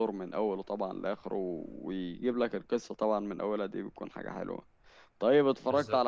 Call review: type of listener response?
listening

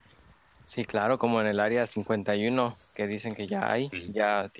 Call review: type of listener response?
listening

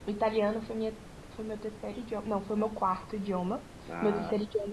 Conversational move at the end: listening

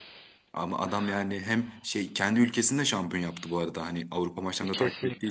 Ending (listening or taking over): taking over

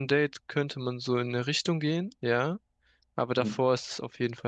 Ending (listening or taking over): listening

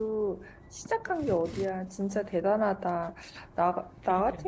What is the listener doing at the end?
listening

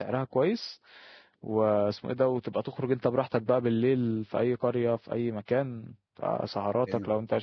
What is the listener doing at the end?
listening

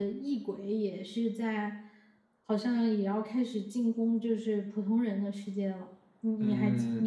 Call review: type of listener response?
taking over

